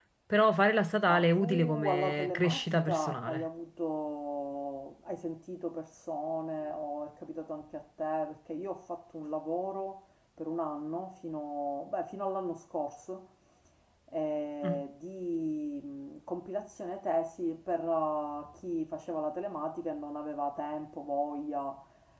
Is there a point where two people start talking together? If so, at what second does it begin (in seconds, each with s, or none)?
1.1 s